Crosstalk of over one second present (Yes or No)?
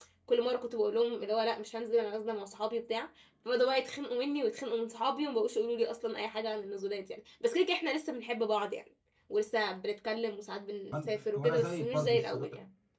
Yes